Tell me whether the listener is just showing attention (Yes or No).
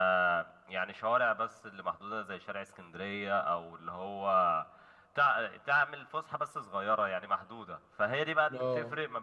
Yes